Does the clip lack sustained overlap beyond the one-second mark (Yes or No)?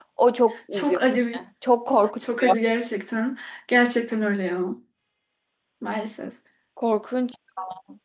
Yes